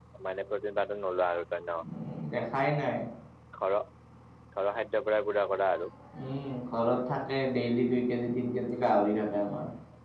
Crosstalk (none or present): none